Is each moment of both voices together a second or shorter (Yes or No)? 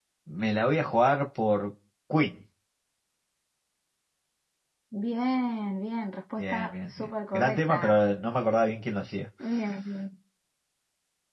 No